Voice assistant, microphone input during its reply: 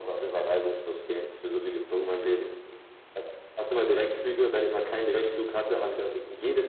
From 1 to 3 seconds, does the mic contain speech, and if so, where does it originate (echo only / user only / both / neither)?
echo only